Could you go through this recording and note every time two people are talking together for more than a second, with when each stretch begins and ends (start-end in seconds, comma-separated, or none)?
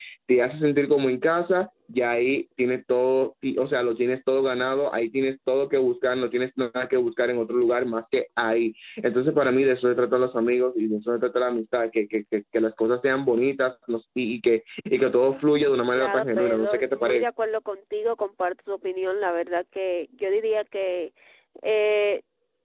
16.0-17.2